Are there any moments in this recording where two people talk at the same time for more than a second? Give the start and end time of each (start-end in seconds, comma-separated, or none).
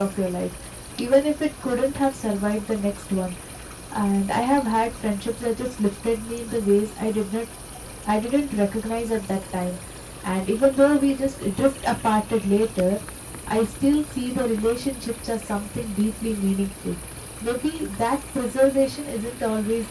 none